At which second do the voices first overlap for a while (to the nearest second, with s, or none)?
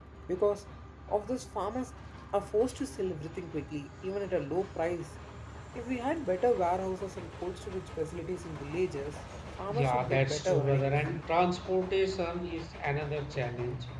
10 s